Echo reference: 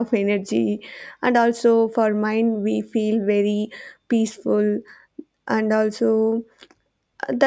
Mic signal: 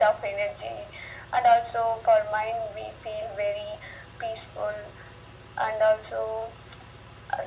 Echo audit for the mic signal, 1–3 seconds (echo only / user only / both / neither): echo only